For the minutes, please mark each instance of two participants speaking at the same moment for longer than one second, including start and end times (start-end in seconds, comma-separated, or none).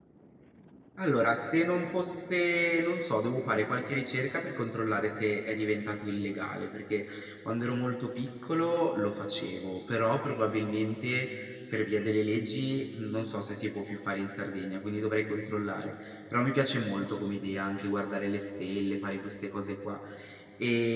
none